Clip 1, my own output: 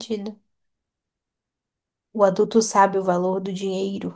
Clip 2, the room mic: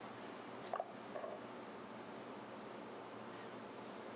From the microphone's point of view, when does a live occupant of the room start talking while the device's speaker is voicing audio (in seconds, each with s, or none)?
none